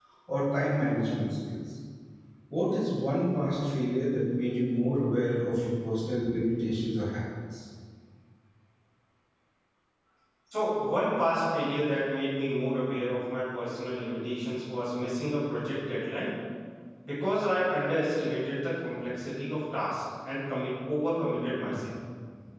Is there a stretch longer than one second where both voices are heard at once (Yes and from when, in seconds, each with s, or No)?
No